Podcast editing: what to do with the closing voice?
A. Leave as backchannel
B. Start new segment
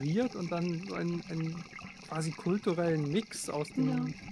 A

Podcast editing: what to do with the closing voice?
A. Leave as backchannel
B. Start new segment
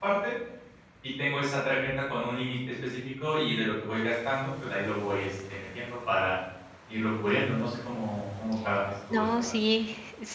B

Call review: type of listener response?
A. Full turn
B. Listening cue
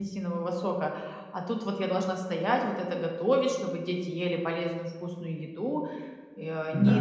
B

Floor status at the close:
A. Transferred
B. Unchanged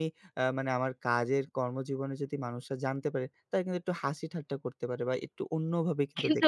A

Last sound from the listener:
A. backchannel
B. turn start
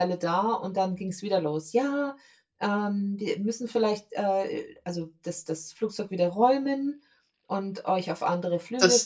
B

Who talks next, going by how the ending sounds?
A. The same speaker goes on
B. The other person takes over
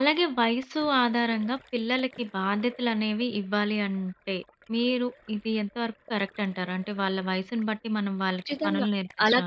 B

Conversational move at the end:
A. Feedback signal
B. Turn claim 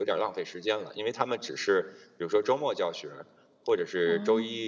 A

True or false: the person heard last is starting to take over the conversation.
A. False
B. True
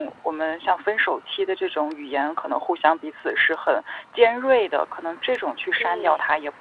A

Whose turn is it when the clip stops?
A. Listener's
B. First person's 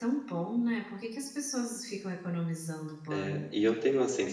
A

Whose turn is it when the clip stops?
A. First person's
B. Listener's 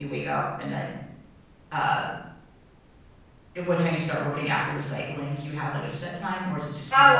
B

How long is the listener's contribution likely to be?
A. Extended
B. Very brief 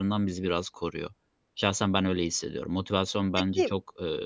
B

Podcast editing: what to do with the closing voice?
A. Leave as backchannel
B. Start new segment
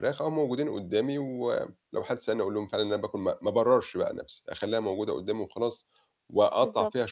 A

